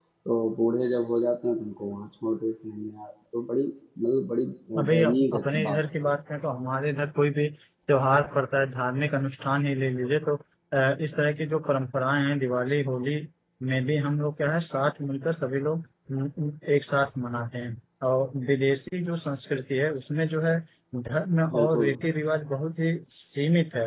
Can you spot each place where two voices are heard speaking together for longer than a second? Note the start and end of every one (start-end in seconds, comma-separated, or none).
4.8-6.1